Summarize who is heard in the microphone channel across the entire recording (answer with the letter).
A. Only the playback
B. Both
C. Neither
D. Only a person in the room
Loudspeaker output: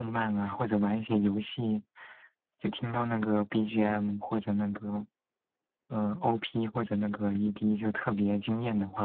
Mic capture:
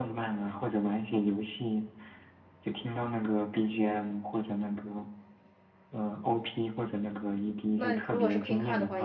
B